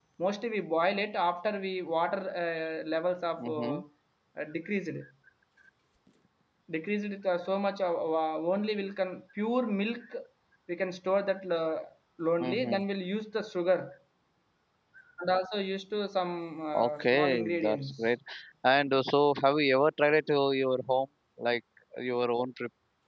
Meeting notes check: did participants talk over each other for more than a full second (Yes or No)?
Yes